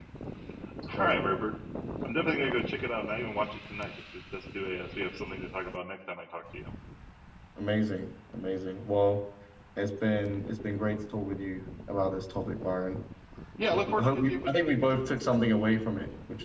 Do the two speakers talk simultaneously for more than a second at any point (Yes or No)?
Yes